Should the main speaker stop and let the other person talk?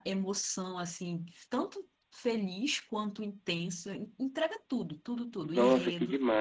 Yes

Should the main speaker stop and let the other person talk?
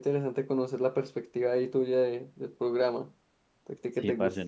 Yes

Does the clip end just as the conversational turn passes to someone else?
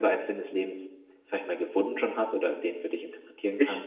Yes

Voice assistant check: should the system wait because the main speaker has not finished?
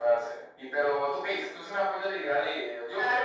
No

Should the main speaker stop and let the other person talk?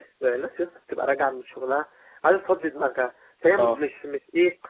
No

